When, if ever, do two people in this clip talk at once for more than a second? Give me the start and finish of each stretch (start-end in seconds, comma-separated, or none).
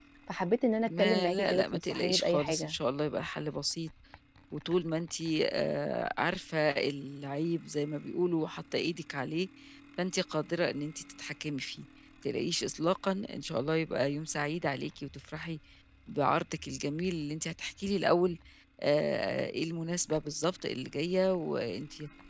0.8-2.7